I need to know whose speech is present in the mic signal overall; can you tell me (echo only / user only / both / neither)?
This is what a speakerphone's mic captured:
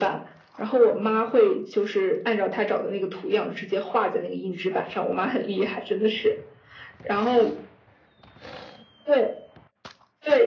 echo only